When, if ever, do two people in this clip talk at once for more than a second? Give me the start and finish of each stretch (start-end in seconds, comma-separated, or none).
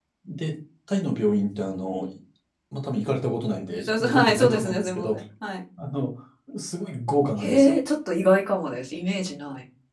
3.5-5.1